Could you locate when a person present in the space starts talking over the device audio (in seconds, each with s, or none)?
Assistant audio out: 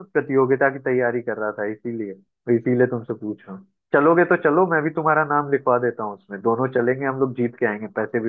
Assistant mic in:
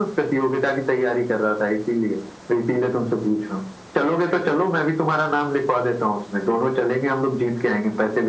none